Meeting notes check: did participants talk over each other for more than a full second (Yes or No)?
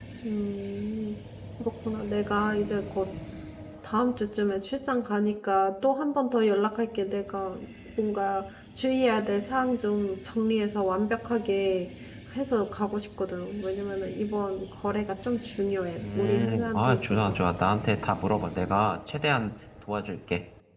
Yes